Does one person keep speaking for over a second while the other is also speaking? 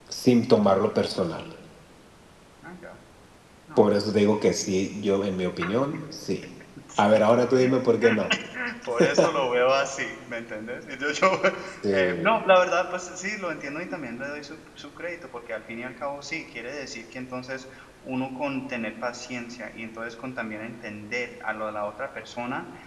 No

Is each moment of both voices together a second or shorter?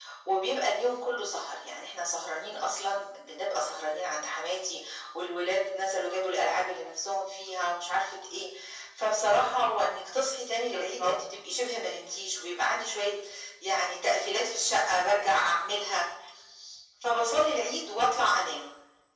Yes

